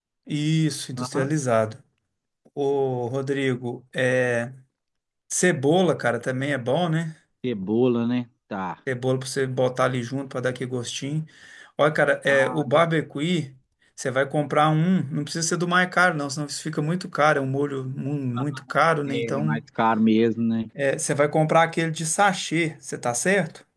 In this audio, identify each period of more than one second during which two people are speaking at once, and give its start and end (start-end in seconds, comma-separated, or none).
none